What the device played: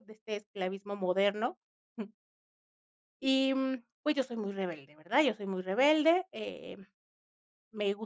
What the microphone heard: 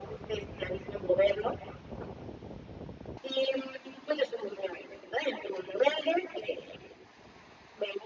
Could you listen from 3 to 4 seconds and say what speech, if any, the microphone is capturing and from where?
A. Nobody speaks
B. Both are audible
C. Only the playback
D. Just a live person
C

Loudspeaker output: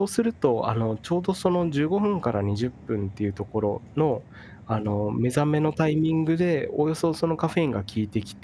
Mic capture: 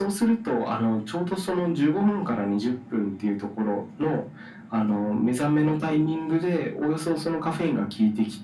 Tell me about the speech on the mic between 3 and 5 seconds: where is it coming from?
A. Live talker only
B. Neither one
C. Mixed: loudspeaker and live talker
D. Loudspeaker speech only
D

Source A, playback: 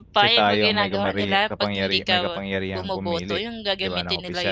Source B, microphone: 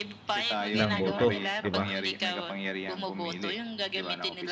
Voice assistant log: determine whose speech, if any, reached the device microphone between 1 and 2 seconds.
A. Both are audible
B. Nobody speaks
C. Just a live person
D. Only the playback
A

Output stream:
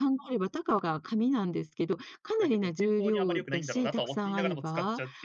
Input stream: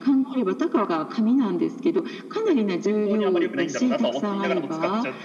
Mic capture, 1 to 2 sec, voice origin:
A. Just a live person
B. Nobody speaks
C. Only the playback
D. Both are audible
C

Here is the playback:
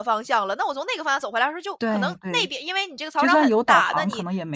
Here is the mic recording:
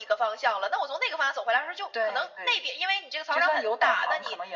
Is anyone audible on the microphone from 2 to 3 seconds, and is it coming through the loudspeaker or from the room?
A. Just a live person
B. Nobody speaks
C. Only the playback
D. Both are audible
C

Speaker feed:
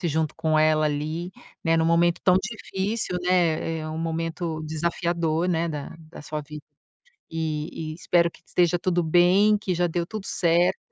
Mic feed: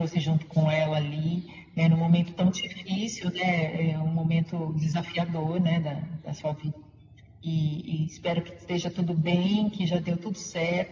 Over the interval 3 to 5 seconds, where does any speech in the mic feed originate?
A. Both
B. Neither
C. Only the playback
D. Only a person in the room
C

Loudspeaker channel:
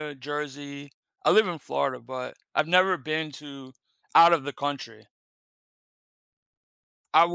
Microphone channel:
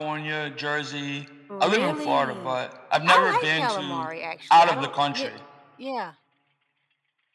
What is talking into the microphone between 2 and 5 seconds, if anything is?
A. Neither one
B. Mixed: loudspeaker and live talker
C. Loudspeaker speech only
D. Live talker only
B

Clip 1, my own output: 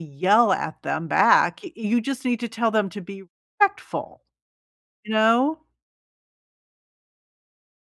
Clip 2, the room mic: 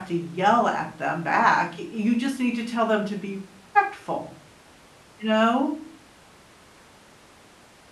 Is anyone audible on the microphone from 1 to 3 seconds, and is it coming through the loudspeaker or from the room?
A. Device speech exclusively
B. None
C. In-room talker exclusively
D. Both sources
A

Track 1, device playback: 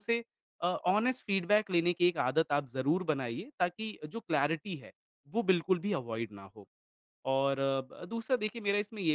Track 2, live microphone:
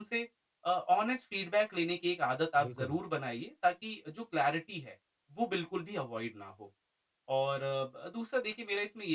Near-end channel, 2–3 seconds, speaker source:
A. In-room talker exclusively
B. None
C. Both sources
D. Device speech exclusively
C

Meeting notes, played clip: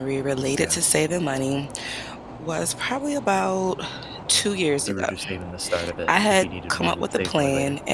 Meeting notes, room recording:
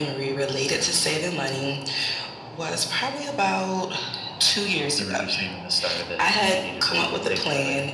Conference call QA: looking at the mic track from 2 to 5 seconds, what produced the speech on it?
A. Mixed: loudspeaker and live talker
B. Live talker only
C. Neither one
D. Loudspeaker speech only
D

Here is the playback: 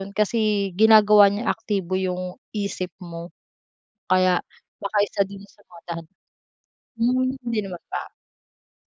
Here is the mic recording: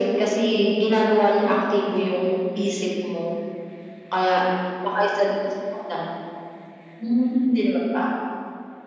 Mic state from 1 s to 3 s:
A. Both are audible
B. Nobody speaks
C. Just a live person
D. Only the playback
D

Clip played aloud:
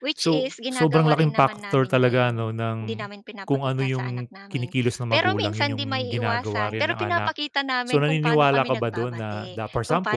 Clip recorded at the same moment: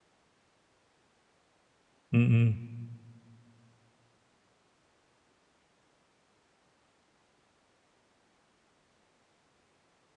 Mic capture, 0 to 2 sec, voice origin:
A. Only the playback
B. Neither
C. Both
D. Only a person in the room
B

